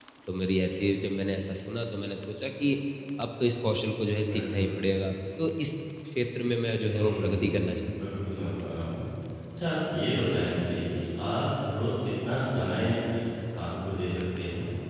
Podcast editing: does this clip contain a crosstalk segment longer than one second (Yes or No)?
Yes